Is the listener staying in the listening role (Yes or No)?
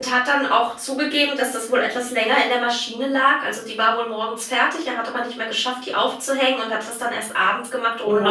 No